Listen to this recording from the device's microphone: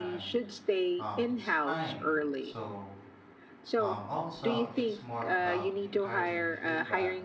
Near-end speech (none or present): present